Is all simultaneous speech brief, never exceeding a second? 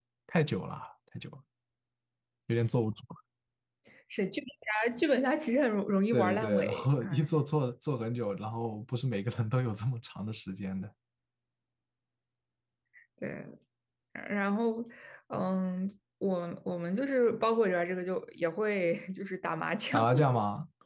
No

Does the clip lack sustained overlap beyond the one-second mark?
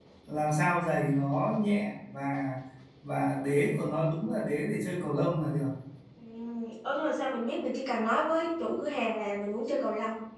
Yes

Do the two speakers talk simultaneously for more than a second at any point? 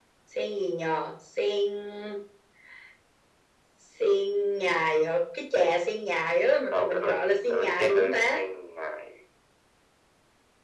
Yes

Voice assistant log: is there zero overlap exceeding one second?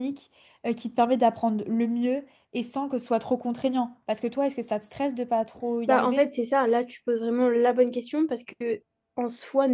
Yes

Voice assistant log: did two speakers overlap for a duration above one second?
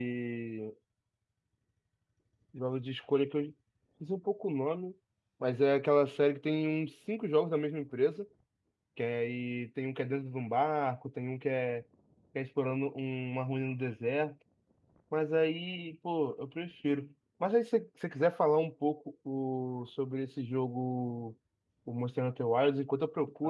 No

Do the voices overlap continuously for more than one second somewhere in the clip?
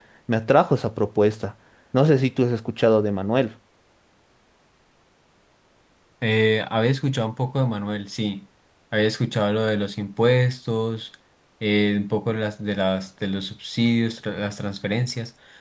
No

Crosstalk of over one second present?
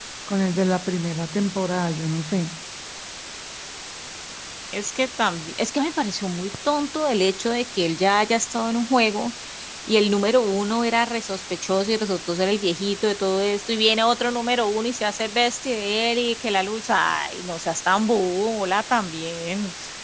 No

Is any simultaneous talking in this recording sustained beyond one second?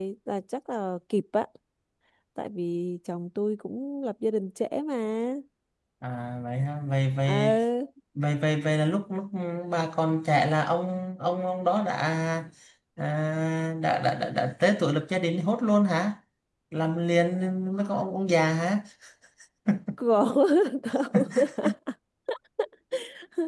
No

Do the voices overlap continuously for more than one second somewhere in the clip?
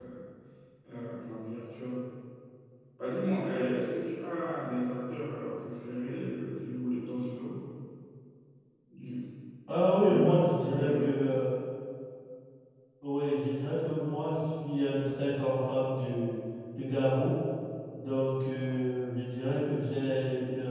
Yes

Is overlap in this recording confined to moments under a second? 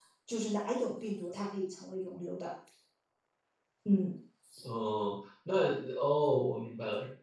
Yes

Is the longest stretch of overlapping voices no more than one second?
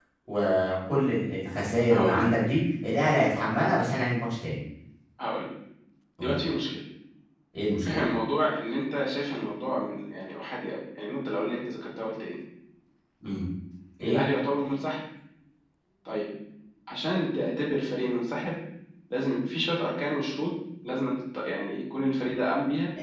Yes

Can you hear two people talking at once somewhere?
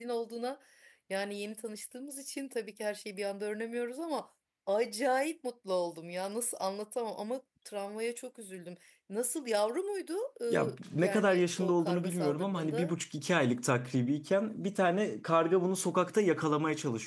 Yes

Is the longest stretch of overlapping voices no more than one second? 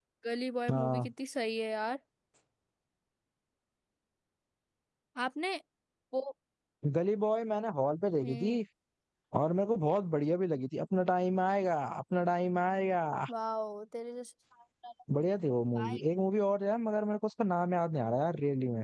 Yes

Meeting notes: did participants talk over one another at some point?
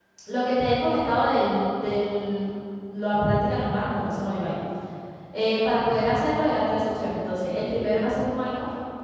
No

